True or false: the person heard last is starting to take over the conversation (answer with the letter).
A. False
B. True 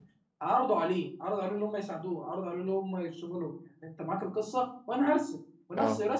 A